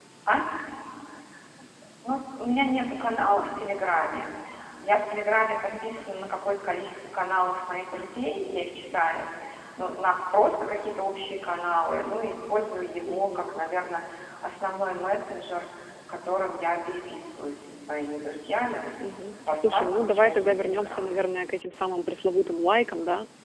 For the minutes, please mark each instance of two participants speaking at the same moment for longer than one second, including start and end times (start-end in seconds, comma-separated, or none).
19.5-21.1